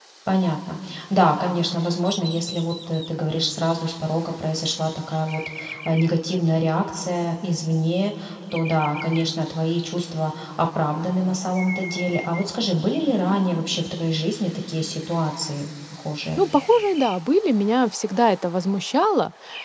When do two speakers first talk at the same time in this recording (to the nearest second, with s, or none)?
none